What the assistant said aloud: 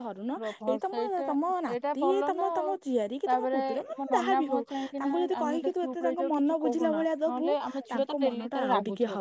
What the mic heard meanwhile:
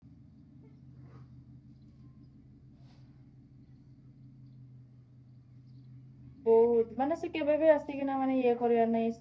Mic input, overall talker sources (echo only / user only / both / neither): user only